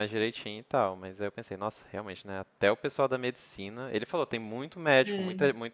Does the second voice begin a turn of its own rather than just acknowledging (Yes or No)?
No